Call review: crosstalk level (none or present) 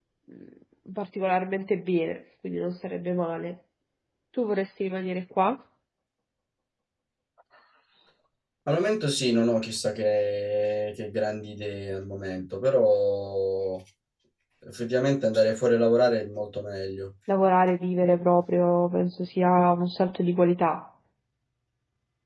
none